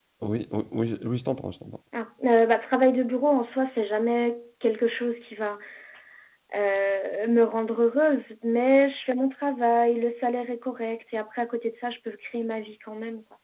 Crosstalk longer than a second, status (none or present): none